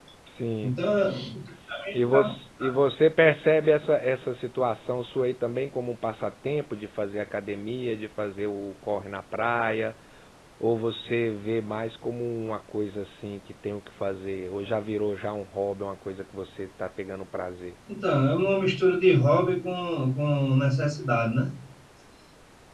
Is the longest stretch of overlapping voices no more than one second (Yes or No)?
Yes